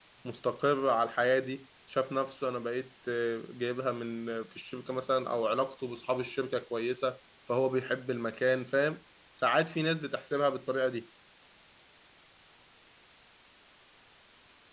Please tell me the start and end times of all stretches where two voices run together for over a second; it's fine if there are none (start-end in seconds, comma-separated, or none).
none